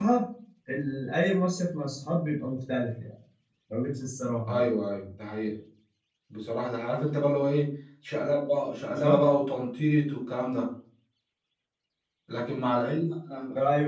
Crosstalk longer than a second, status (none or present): none